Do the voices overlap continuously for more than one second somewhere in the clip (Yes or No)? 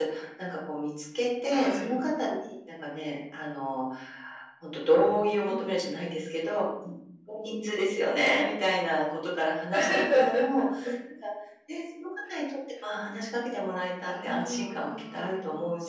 Yes